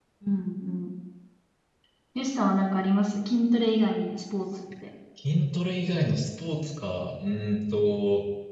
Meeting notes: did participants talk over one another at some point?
No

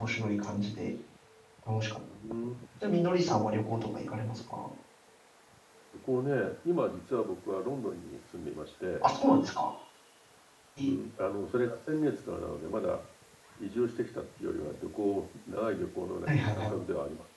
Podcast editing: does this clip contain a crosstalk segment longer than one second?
No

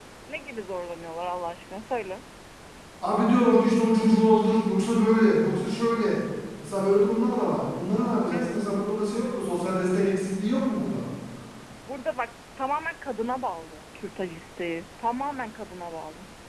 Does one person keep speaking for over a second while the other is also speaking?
No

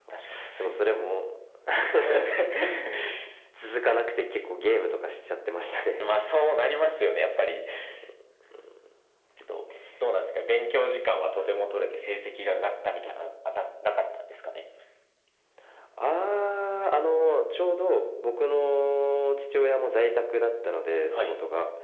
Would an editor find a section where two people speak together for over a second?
No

